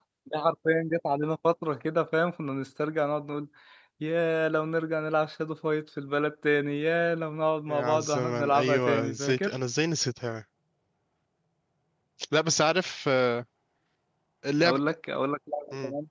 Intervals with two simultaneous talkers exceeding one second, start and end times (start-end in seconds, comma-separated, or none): 7.7-9.5